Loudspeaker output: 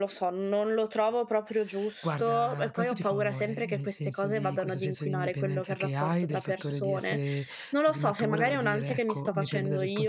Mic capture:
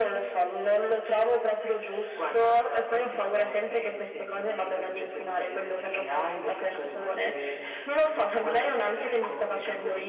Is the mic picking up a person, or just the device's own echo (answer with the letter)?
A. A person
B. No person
B